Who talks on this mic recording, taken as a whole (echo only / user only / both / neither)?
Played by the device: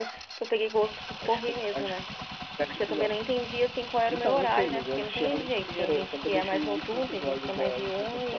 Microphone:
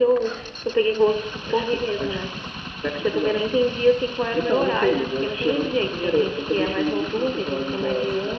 echo only